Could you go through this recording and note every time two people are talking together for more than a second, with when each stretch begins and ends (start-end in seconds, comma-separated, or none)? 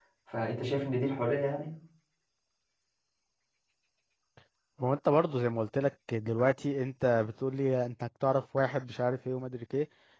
none